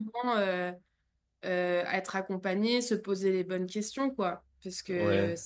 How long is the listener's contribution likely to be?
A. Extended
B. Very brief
B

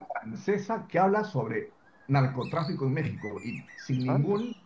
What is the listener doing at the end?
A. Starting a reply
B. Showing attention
B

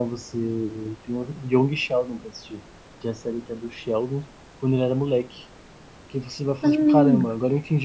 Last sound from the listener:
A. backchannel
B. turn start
A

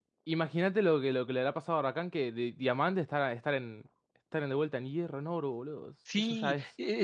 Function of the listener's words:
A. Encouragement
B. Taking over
B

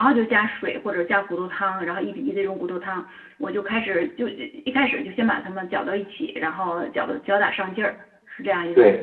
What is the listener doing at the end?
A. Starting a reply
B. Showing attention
A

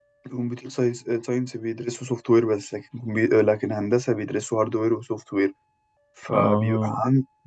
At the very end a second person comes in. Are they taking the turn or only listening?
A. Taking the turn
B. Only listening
B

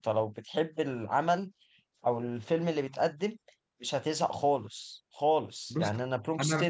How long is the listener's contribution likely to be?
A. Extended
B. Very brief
B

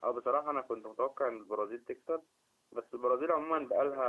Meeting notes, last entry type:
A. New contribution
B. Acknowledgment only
B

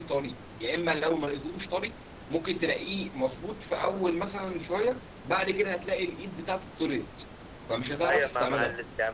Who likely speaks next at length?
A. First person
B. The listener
B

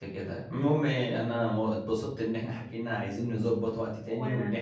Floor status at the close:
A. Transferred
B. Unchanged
B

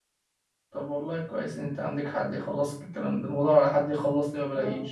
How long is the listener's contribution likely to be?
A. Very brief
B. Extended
A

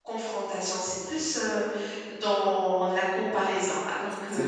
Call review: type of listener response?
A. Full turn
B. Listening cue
A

